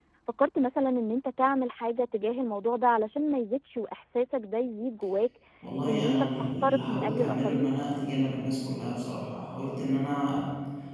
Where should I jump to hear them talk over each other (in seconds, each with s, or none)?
5.9 s